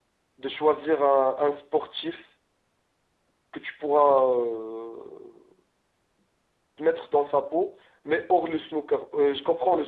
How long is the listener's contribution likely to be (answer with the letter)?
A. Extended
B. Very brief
B